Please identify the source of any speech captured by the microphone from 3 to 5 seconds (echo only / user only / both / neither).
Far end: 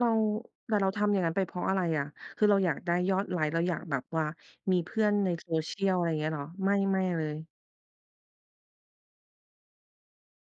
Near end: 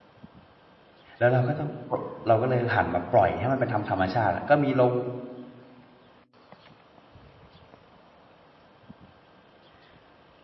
user only